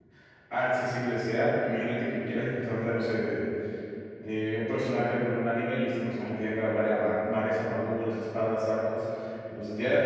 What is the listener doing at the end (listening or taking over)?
listening